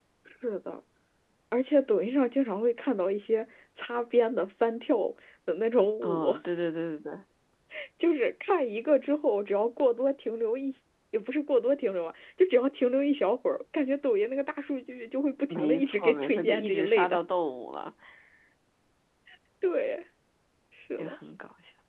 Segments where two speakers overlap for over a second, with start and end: 15.5-17.2

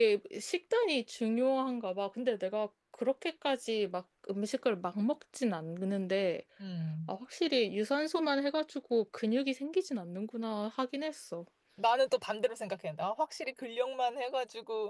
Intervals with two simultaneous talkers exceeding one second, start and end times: none

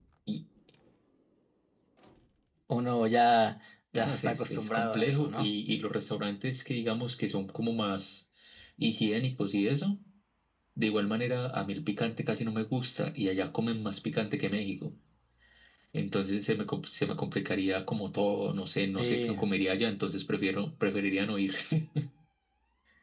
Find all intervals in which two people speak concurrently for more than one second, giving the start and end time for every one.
4.0-5.5

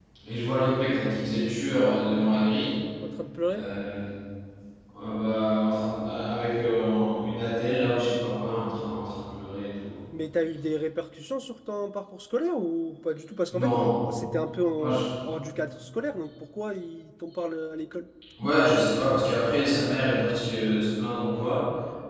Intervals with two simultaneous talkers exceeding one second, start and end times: none

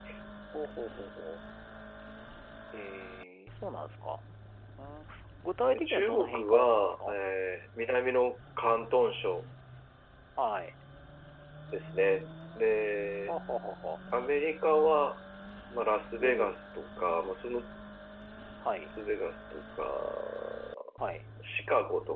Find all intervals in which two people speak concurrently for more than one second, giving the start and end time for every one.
5.8-7.1

